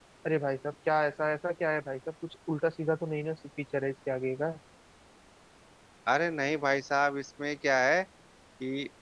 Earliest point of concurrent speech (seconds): none

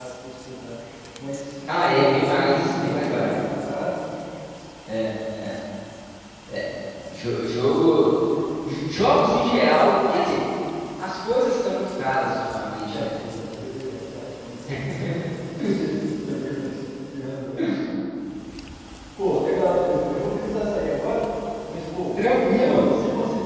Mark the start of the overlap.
1.7 s

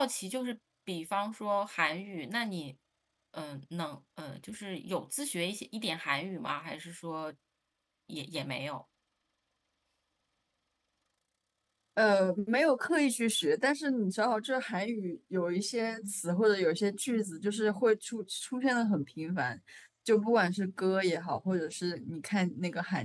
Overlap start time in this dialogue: none

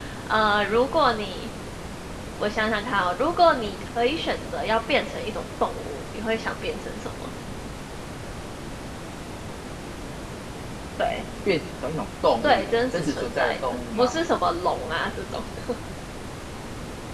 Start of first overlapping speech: 12.4 s

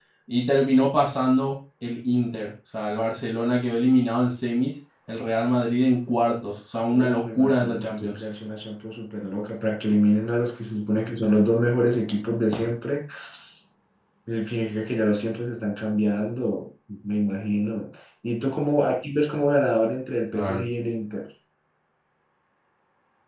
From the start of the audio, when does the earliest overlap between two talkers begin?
6.9 s

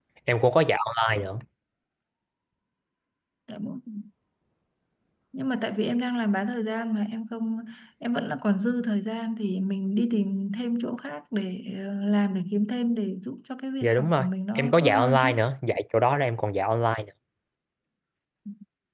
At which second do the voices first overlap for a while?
13.8 s

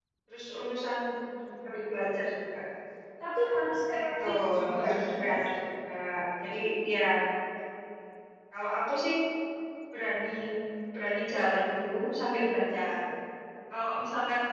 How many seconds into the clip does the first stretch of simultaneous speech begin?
3.9 s

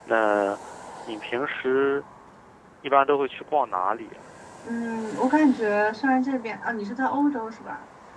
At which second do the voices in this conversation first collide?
none

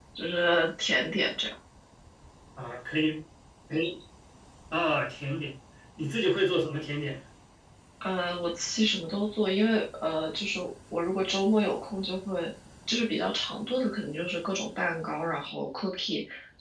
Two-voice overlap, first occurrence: none

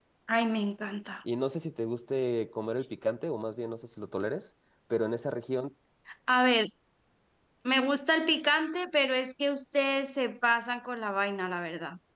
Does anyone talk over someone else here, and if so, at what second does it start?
none

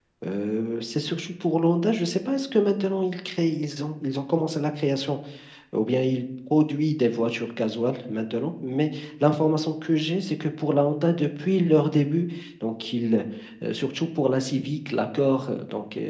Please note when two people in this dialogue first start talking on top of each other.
none

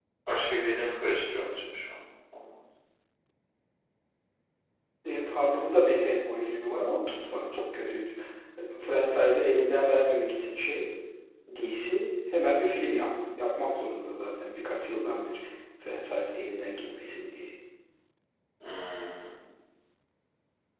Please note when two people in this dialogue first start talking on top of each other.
none

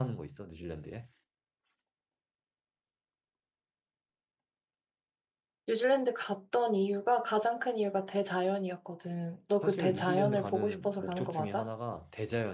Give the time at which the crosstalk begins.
9.5 s

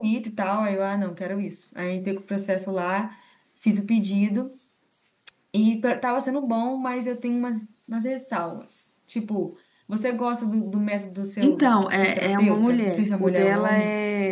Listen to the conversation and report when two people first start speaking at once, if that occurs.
11.4 s

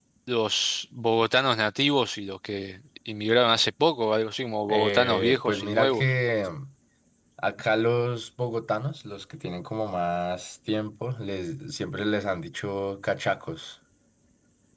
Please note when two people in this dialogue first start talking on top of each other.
4.7 s

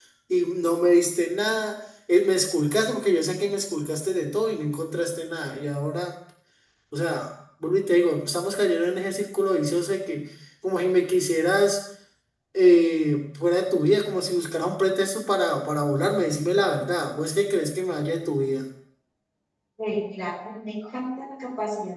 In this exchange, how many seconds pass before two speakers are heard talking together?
none

